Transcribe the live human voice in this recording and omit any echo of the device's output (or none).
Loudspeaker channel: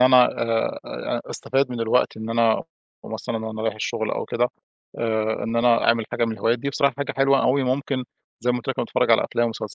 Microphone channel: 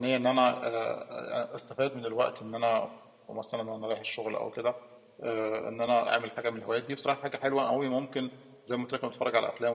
none